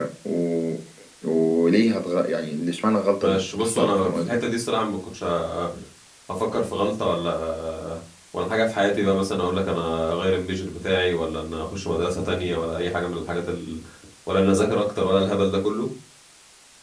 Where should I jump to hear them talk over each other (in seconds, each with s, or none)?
3.2 s